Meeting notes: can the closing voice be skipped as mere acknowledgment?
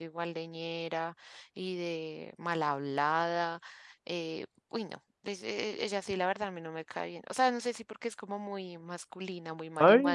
No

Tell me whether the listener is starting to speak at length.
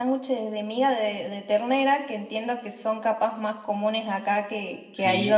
Yes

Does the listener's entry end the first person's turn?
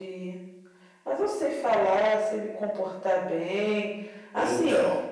No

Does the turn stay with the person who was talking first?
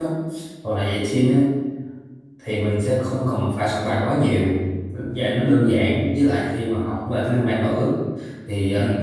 Yes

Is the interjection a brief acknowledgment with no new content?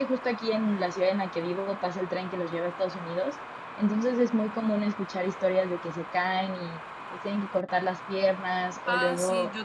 No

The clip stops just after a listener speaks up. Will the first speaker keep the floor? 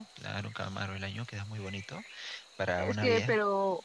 No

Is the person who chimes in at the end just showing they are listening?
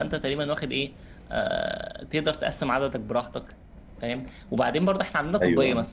Yes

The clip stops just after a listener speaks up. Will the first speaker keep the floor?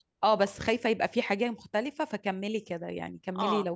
No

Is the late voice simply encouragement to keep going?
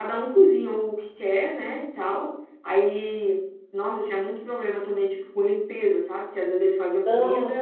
Yes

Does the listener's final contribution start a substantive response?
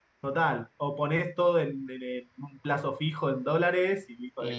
Yes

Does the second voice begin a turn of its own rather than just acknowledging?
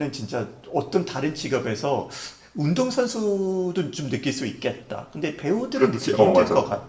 Yes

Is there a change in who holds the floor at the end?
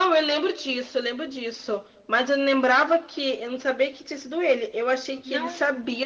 No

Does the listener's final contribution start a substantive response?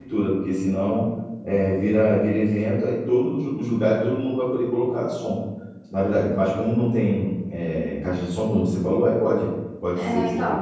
Yes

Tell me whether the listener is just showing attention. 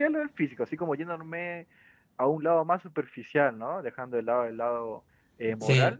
Yes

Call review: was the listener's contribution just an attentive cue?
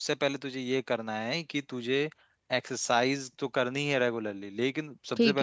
Yes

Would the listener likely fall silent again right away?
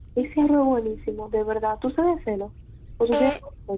No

